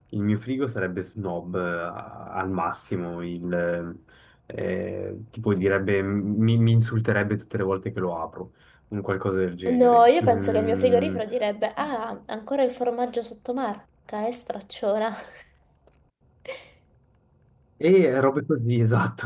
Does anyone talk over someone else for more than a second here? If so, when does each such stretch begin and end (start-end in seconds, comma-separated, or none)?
9.7-11.2